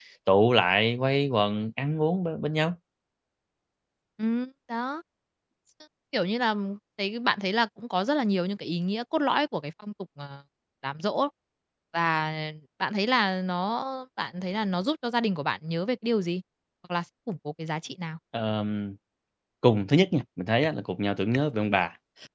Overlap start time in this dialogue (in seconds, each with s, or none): none